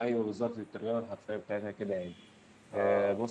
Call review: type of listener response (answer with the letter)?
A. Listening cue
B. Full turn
A